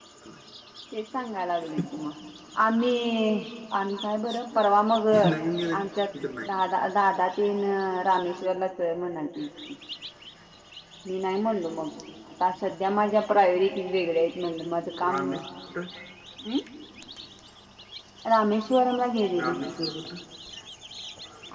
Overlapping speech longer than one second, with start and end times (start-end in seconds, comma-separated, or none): none